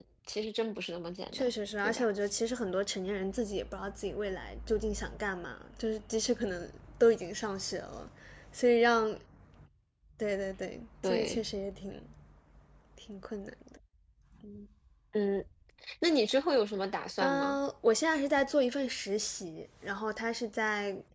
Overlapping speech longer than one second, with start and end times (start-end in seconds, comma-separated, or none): none